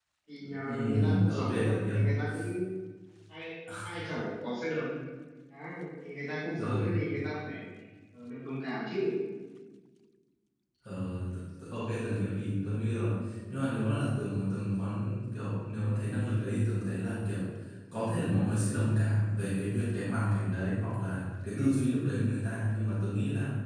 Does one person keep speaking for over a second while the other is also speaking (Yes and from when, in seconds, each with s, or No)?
Yes, from 0.6 s